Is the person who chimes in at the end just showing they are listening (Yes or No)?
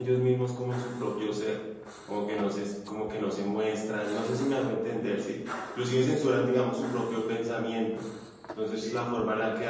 Yes